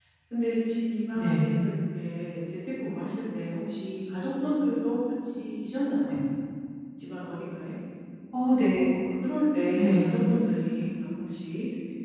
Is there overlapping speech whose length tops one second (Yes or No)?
No